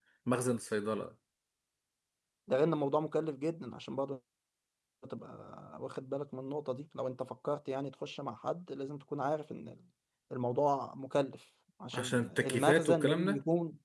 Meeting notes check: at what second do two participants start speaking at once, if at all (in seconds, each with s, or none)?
11.9 s